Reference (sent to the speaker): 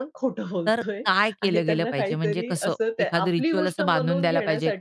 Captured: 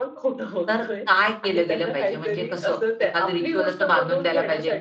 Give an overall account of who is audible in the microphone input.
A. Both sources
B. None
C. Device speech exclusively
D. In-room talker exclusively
C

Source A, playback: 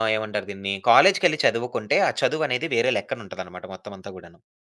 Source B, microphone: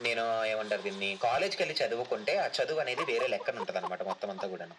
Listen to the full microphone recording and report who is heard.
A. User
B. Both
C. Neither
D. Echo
D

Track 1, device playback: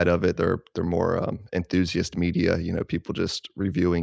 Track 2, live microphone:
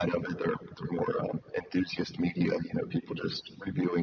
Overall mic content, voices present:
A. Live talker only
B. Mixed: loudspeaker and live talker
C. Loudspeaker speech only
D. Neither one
C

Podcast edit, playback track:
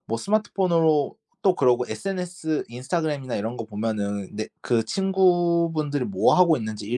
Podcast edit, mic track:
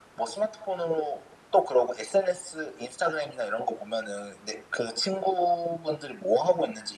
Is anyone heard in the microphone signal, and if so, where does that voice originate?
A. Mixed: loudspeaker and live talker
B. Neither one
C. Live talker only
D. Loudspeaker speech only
D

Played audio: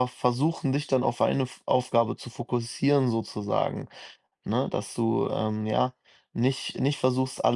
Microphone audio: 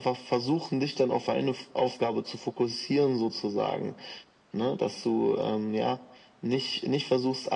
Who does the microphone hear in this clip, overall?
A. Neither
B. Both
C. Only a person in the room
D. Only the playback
D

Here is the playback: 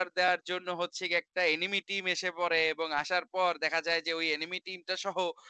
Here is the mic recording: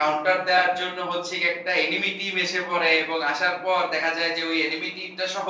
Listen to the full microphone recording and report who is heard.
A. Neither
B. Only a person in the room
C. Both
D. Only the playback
D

